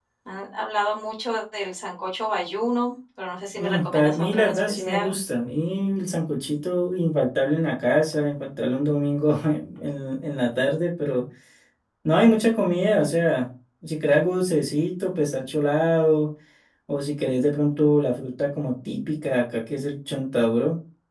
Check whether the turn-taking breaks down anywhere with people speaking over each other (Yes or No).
Yes